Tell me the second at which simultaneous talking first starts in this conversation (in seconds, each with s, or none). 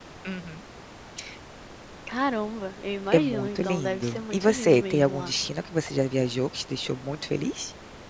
3.1 s